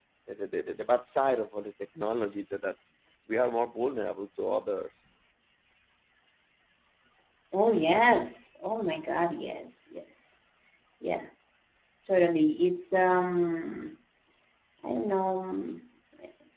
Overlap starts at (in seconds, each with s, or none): none